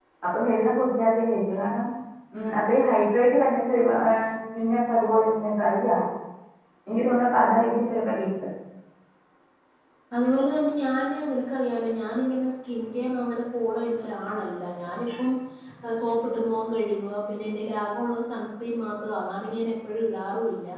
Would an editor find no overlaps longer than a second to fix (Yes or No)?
Yes